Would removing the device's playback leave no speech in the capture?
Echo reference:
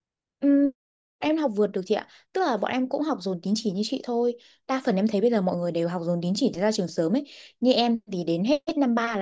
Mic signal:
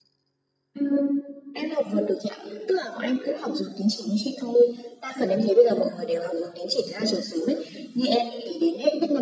Yes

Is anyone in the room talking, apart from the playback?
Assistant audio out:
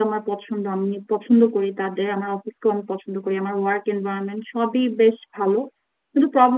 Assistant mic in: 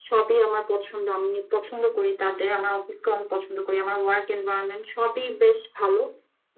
No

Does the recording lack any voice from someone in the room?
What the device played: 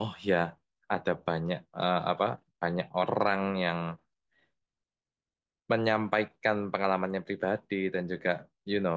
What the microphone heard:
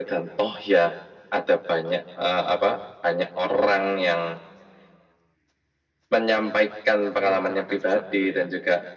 No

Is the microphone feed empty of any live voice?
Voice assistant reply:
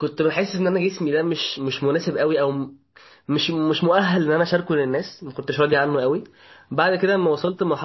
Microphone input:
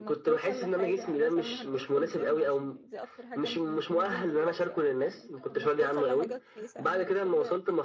No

